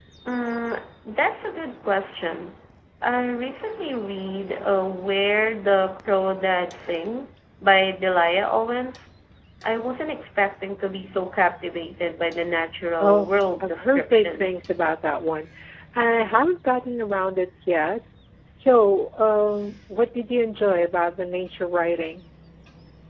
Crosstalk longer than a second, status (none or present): present